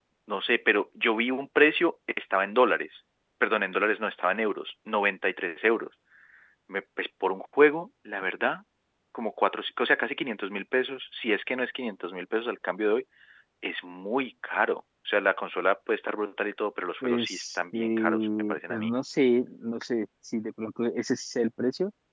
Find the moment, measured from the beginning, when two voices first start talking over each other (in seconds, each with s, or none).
17.0 s